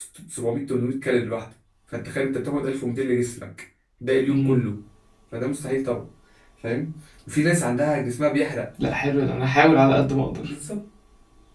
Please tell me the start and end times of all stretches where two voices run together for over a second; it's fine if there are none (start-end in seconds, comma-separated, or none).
none